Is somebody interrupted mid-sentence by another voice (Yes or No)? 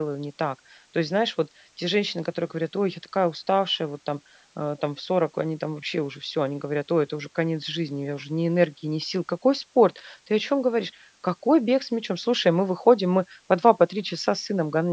No